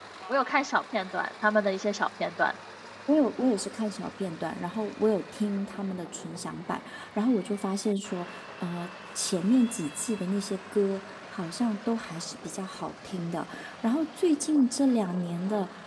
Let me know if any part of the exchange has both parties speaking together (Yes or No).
No